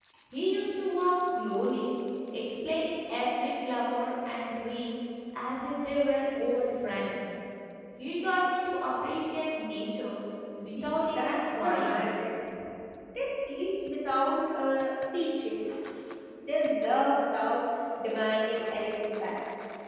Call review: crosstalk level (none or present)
present